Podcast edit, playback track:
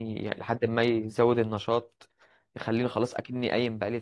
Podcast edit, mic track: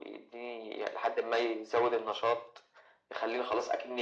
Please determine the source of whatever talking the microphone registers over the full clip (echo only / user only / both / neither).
echo only